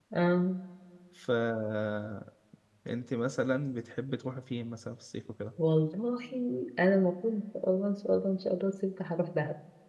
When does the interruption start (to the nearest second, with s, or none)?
none